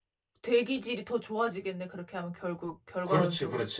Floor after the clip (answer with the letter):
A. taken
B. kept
A